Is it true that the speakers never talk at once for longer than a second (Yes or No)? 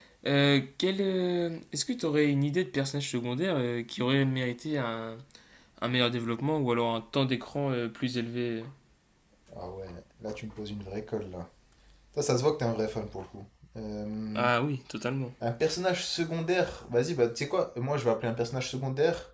Yes